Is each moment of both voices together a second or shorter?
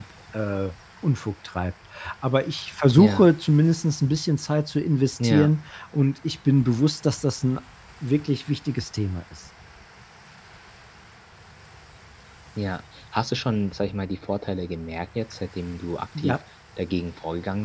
Yes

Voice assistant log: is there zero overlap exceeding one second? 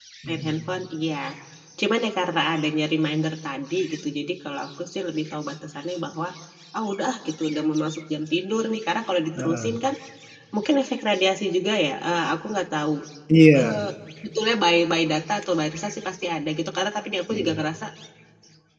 Yes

